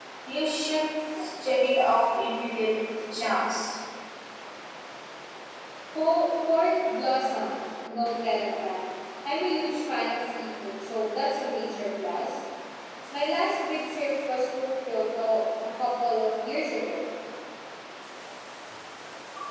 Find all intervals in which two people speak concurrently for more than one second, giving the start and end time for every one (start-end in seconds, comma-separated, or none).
none